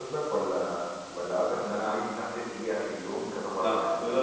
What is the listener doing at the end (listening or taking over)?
taking over